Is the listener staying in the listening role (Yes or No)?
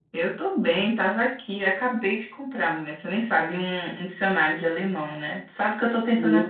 Yes